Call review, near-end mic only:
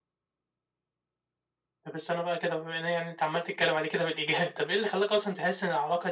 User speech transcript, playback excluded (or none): none